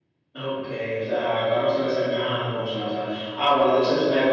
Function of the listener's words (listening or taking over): listening